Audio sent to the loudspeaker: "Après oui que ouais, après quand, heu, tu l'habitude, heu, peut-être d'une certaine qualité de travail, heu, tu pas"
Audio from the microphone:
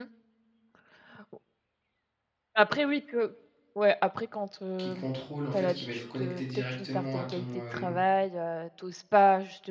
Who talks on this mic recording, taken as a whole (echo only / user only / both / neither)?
both